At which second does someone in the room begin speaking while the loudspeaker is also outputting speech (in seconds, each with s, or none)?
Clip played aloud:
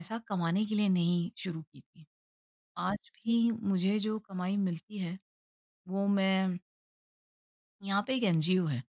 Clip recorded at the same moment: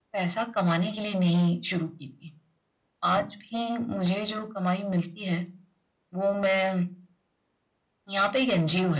none